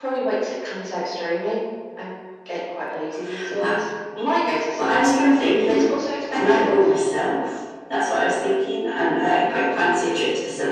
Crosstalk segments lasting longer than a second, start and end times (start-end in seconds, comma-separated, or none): none